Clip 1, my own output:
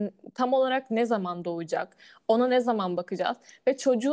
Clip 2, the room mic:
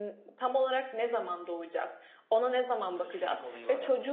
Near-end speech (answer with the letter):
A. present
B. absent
A